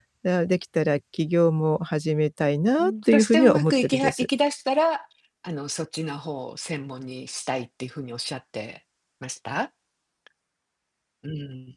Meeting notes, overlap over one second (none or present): present